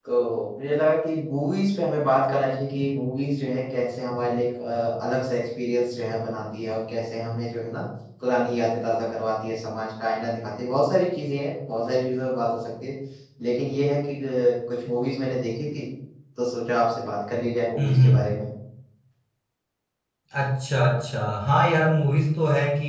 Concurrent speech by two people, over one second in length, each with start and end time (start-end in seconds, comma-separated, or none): none